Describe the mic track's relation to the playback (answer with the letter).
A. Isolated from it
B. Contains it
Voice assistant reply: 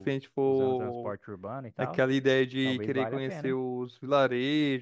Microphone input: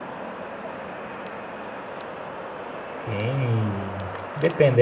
A